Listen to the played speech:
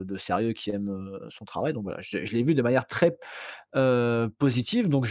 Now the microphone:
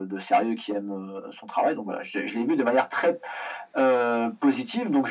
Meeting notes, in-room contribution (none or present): none